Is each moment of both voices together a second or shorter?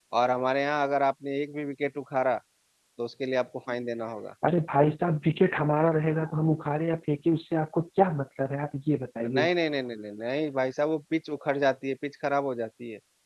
Yes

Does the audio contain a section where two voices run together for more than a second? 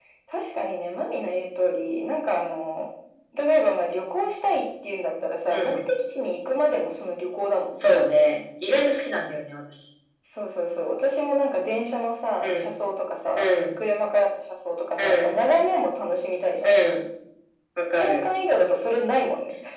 No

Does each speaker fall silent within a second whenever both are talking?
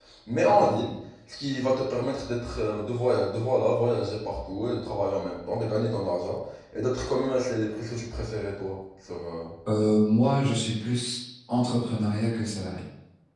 Yes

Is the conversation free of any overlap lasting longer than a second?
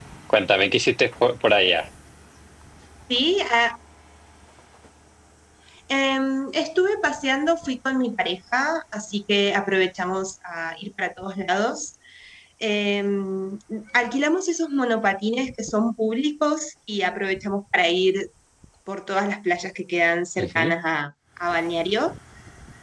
Yes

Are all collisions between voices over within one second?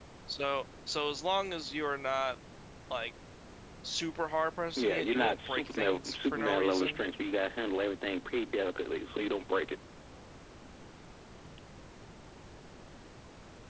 No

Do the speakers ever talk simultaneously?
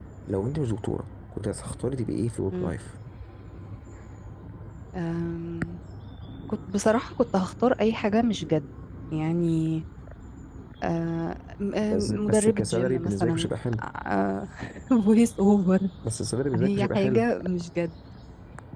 Yes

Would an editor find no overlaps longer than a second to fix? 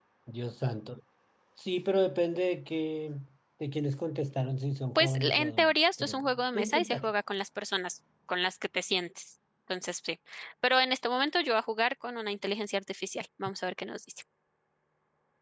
No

